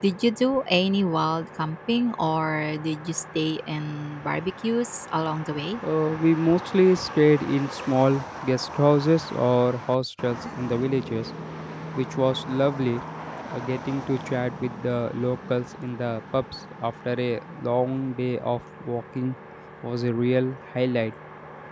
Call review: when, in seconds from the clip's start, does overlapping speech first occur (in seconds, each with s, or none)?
none